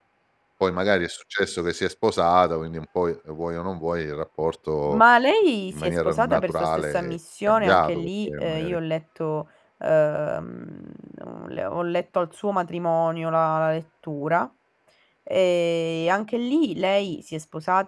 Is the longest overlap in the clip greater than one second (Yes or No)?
Yes